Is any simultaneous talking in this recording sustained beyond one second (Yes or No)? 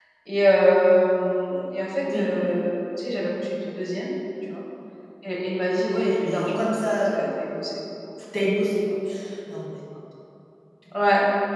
Yes